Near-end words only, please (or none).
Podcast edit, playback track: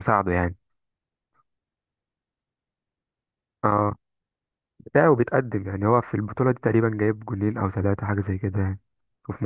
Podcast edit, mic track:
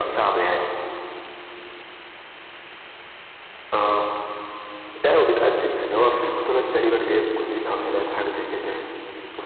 none